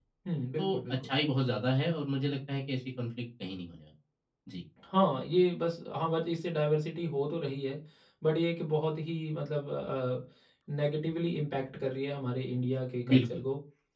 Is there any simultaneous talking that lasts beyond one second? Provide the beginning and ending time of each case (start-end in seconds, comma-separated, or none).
none